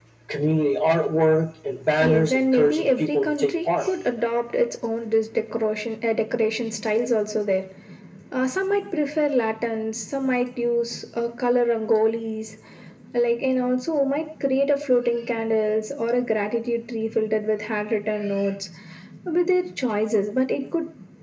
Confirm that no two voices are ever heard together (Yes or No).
No